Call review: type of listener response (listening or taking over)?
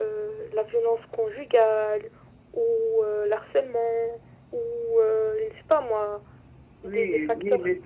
taking over